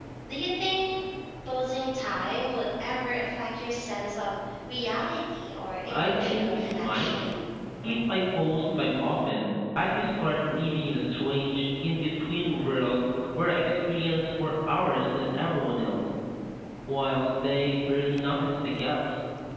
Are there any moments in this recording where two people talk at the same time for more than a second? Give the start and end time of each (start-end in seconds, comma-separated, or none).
5.9-7.1